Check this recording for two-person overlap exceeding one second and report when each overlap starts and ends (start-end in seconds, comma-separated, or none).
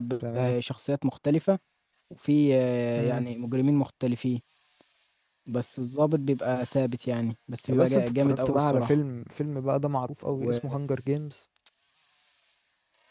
7.7-8.9